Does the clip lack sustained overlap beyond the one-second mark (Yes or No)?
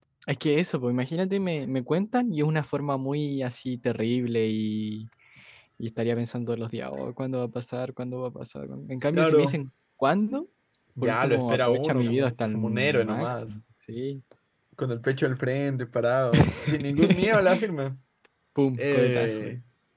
No